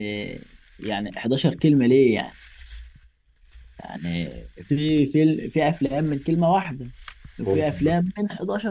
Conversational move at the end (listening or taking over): listening